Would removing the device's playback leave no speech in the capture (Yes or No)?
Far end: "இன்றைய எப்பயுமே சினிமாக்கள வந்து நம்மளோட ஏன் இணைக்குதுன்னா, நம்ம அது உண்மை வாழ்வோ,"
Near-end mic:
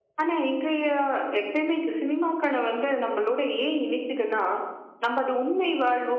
Yes